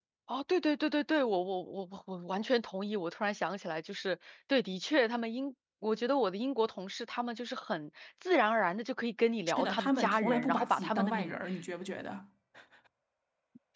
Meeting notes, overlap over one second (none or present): present